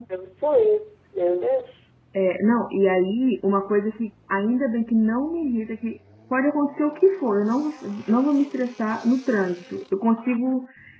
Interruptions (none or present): none